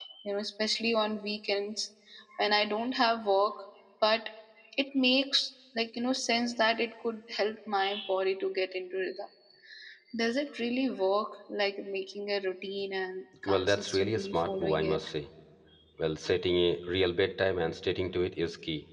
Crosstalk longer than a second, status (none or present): present